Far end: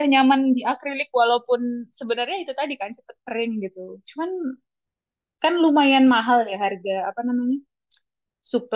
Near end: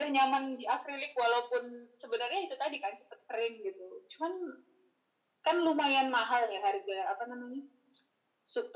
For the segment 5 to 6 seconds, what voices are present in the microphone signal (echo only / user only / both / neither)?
echo only